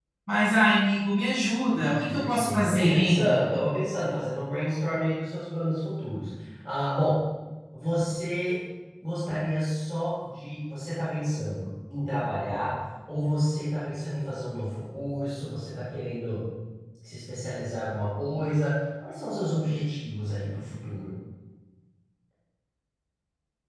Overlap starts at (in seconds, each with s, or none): 1.8 s